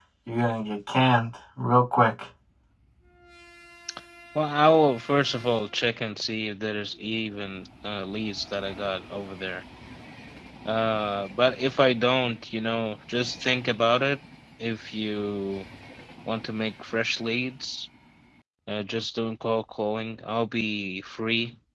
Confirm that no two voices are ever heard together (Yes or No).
Yes